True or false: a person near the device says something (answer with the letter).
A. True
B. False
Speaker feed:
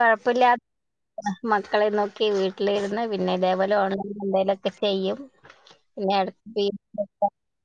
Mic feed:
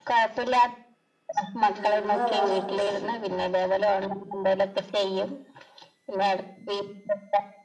A